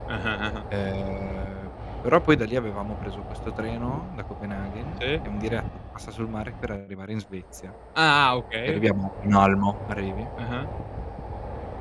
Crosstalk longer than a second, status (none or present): none